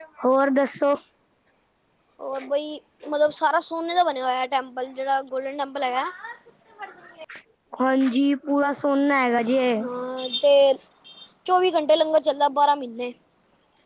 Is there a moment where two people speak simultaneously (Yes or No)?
No